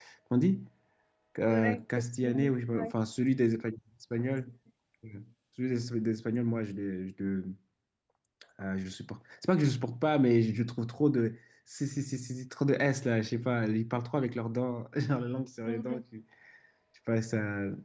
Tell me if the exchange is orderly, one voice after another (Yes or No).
No